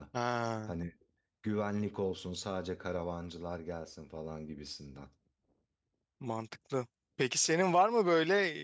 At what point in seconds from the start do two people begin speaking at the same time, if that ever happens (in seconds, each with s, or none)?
none